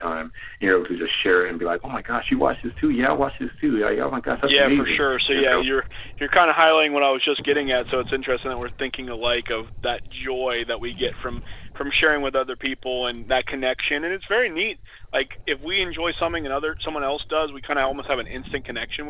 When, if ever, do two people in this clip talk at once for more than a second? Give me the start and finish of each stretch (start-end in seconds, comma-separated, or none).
4.4-5.6